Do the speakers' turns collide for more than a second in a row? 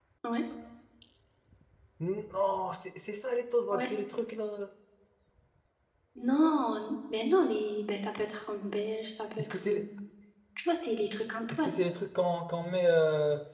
No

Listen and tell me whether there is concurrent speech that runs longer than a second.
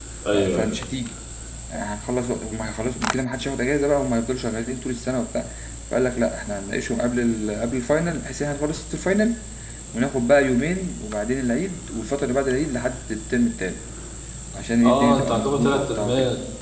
Yes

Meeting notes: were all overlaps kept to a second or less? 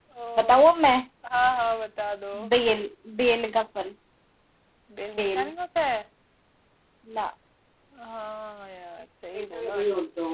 Yes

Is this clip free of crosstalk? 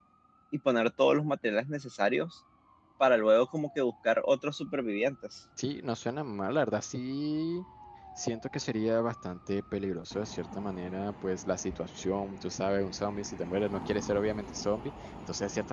Yes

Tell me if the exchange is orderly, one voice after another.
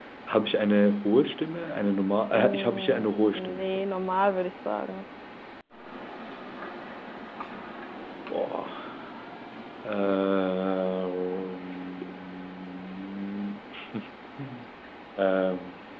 No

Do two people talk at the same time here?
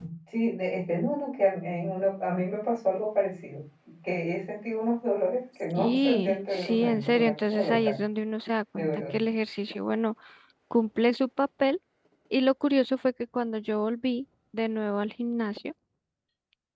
Yes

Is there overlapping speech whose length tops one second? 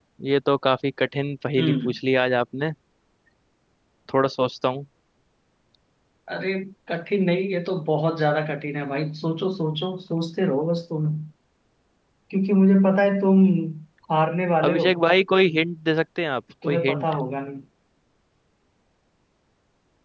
No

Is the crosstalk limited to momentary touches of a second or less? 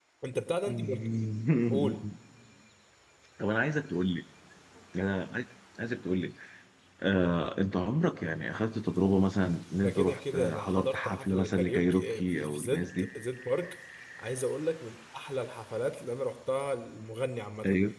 No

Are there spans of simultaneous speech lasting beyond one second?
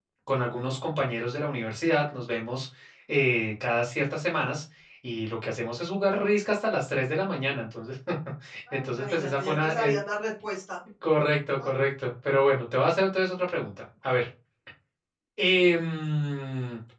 Yes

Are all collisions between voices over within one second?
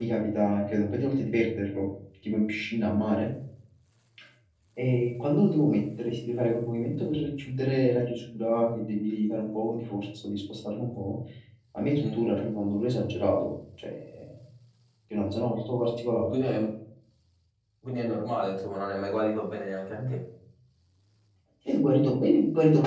Yes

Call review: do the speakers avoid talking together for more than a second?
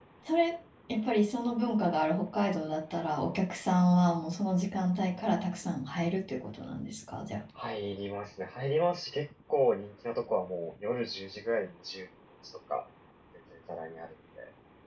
Yes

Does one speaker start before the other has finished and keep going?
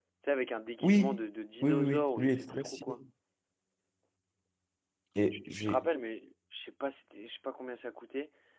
Yes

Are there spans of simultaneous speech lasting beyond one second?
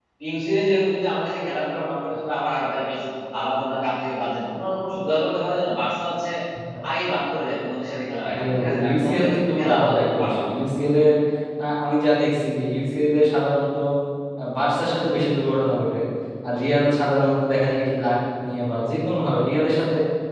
Yes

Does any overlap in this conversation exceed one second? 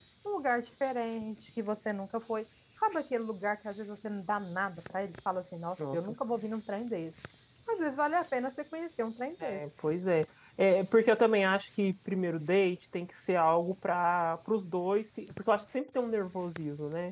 No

